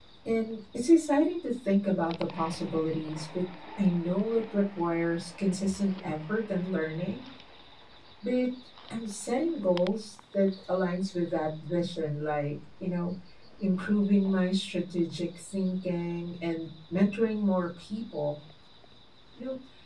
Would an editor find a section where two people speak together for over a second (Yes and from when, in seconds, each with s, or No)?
No